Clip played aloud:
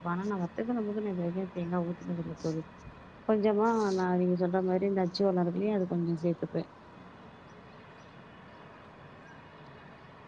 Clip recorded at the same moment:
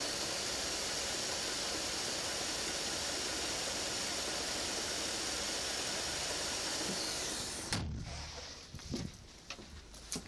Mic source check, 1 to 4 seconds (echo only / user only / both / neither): neither